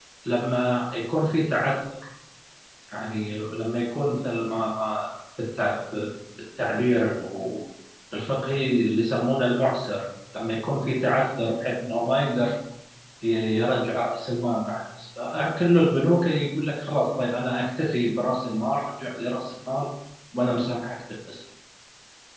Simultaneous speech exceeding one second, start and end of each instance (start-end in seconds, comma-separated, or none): none